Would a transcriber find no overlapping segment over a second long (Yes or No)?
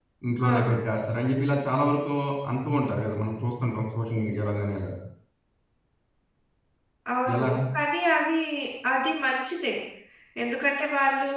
Yes